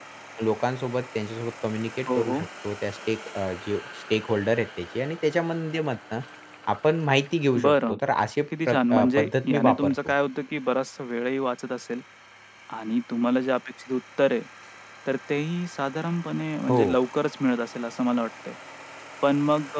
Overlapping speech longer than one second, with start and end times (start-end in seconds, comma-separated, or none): 8.7-9.9